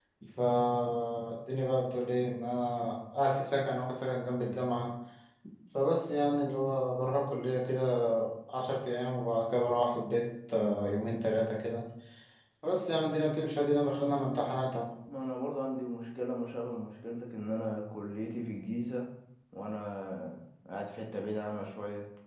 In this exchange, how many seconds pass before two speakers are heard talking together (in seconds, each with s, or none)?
none